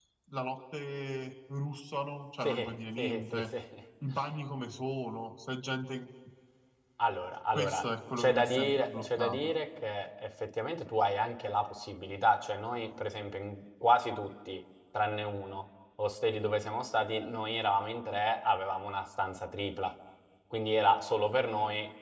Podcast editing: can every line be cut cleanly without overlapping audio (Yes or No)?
No